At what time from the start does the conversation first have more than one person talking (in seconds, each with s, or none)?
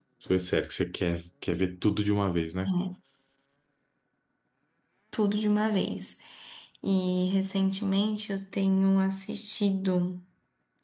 none